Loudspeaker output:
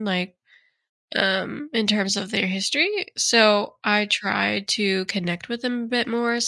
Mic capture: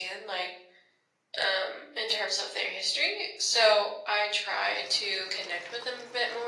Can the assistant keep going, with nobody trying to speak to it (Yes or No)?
Yes